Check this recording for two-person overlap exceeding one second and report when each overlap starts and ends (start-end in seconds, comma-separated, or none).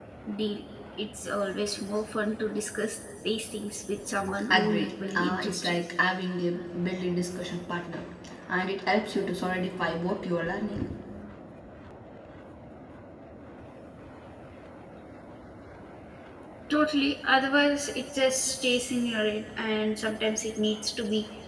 4.5-5.8